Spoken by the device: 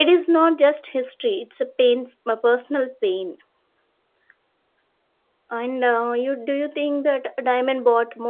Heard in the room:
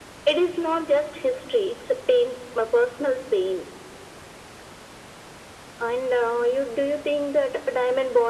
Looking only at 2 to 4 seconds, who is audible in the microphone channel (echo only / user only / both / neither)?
echo only